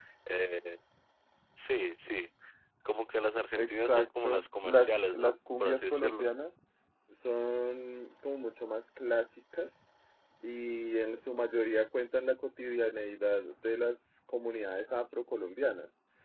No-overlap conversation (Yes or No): No